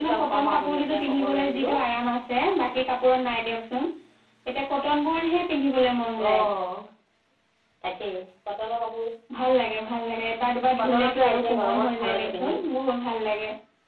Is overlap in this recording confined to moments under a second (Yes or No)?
No